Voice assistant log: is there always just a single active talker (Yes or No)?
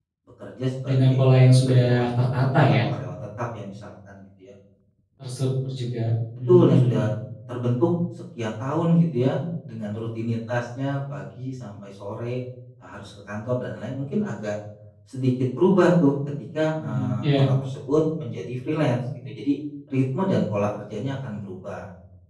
No